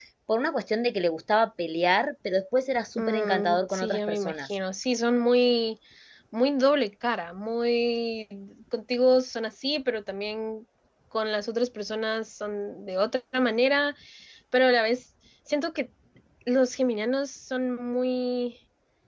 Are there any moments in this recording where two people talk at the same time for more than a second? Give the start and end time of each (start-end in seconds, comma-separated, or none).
3.0-4.6